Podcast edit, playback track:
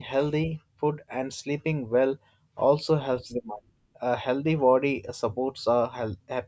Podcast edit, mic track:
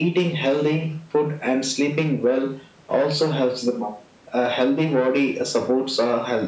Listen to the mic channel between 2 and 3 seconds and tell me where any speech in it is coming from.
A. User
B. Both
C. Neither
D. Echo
D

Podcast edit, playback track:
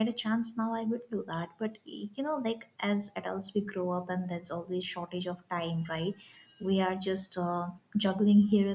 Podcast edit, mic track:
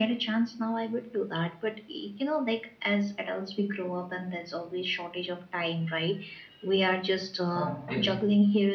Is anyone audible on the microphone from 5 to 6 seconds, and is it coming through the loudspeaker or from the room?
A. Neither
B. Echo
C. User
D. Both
B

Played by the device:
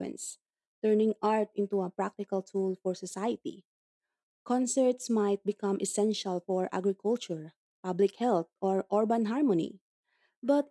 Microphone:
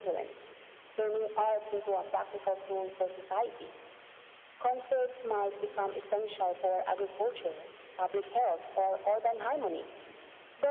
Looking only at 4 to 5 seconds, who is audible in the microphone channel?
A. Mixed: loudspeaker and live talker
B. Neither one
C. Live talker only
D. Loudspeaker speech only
D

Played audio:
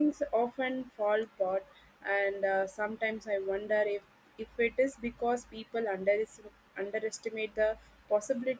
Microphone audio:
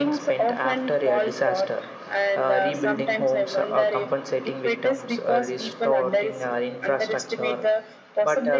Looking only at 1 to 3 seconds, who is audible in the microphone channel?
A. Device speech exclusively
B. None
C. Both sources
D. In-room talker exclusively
C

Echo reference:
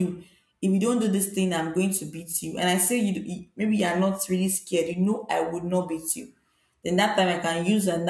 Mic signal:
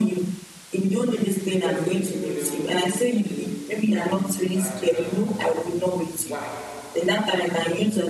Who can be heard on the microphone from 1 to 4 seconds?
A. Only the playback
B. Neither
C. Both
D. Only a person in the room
C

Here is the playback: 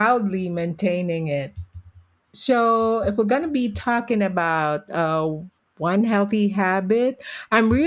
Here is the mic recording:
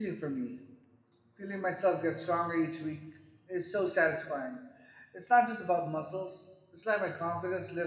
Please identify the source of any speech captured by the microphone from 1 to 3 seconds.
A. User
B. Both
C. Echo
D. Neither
A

